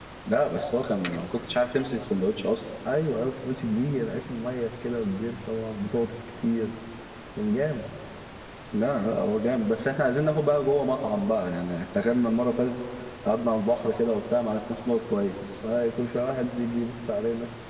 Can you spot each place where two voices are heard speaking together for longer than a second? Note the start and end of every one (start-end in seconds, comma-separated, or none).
none